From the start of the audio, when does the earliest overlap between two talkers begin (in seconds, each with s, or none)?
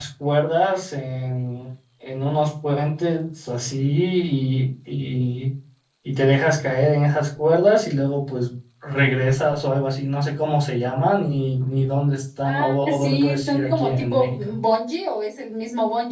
12.4 s